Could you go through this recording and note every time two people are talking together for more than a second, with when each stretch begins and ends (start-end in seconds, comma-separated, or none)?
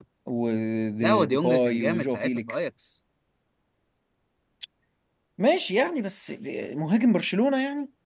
1.0-2.6